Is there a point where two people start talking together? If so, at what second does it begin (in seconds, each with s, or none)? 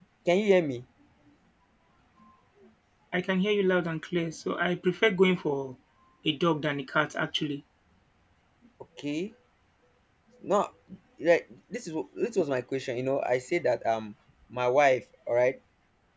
none